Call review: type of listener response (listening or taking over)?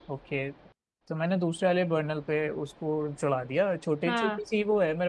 listening